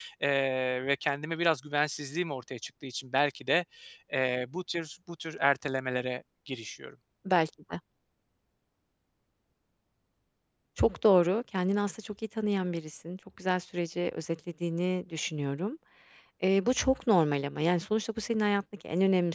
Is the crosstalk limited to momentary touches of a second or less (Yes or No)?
Yes